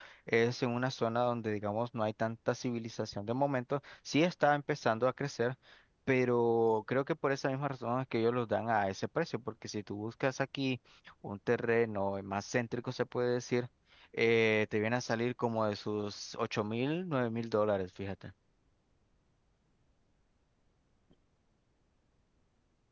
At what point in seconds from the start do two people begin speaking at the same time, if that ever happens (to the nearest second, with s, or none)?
none